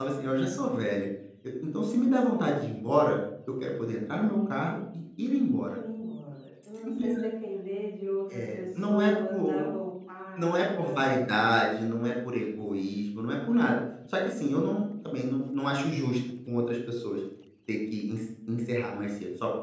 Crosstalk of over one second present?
Yes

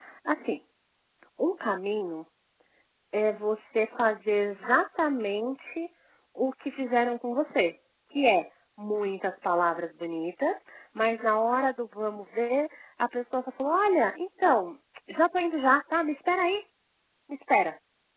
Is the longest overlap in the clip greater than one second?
No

